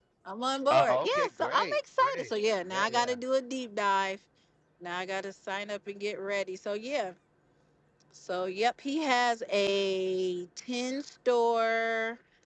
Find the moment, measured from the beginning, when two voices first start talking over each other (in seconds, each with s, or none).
0.7 s